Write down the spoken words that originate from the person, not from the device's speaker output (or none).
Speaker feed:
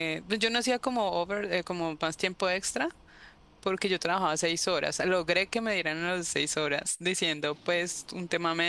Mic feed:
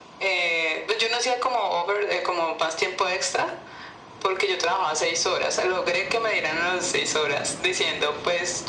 none